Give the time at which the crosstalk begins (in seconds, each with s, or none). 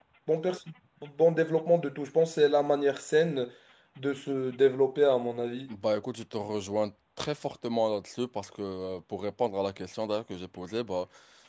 none